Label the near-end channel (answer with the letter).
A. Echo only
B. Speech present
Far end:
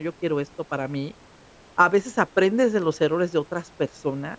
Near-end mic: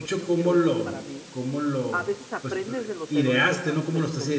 B